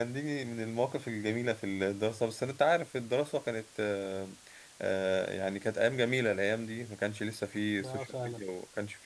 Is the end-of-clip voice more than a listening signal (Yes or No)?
No